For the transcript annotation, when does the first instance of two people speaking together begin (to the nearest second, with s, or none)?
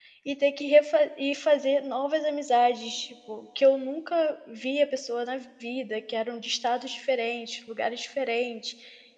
none